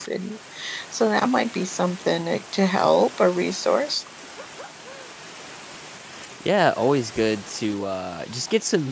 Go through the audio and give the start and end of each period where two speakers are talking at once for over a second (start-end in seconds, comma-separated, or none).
none